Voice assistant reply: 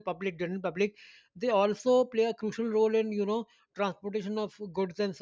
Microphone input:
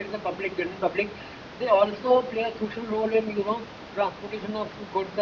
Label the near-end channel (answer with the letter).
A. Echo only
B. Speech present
A